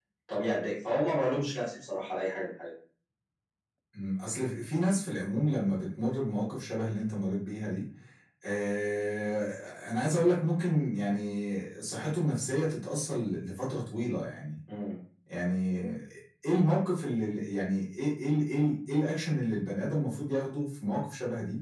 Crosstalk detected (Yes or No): No